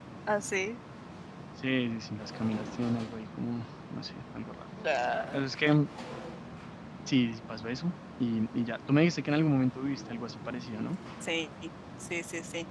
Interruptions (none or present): none